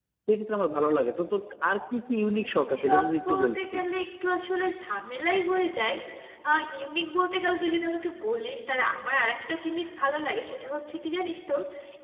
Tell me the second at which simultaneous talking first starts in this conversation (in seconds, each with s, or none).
2.1 s